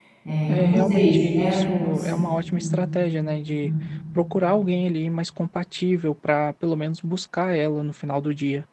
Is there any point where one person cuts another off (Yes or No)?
Yes